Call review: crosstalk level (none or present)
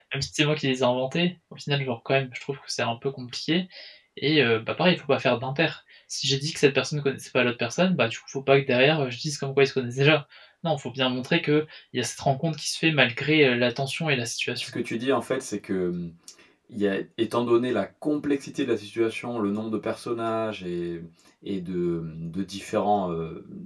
none